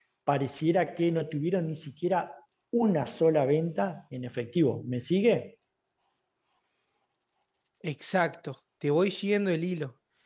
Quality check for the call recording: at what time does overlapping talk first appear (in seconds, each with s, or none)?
none